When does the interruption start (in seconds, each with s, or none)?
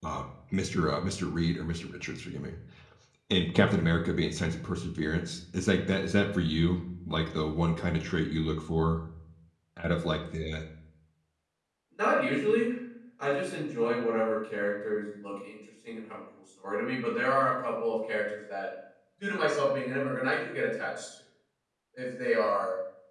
none